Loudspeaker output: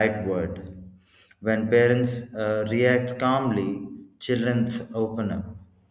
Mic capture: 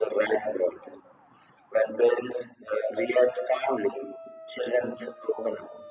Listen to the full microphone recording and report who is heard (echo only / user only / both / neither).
echo only